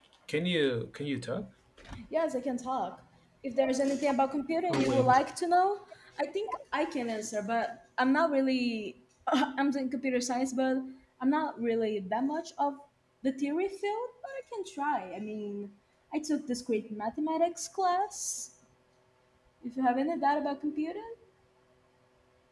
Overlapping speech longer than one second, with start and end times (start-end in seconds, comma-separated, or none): none